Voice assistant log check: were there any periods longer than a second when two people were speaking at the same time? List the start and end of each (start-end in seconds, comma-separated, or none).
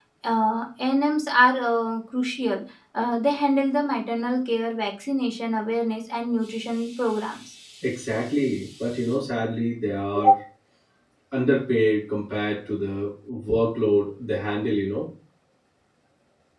none